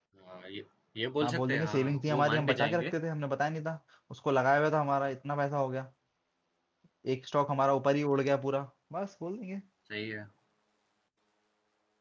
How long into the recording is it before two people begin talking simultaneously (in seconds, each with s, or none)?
1.2 s